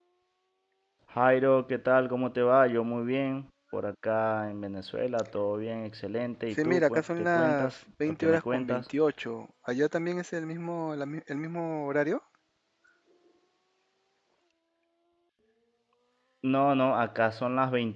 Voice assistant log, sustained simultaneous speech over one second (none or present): present